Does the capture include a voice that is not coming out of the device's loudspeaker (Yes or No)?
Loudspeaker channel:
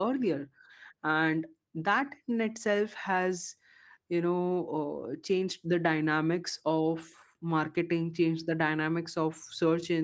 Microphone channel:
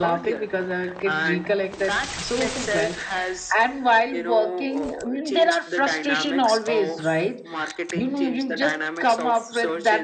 Yes